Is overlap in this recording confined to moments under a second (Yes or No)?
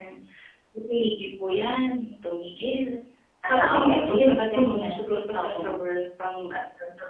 No